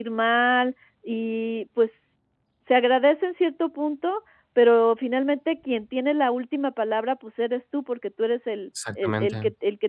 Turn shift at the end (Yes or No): No